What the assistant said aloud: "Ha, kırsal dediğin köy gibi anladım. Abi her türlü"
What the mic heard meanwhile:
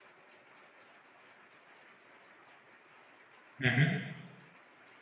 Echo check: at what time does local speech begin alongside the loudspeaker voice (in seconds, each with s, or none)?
3.6 s